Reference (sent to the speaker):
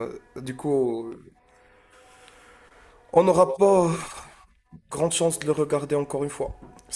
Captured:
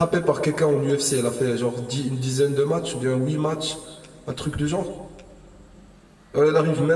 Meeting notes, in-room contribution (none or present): present